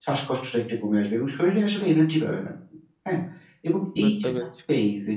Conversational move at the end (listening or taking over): listening